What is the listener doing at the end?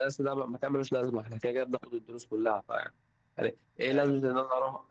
listening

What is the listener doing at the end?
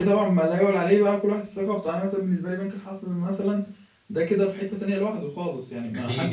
taking over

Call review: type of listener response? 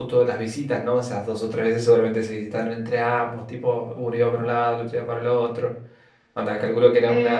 taking over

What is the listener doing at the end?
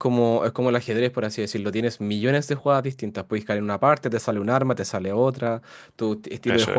listening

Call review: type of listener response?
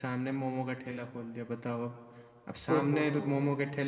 listening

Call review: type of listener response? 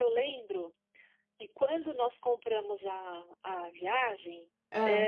listening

